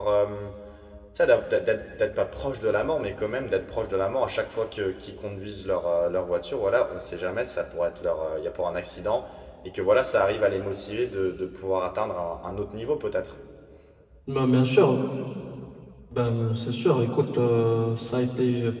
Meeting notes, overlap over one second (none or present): none